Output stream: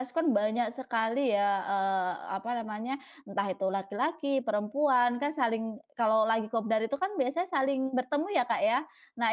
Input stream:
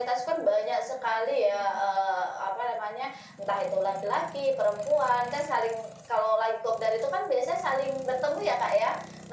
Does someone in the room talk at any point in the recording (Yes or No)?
No